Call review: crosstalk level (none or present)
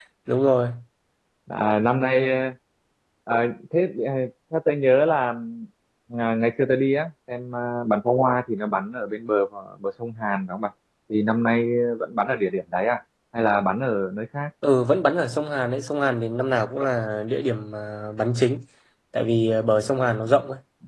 none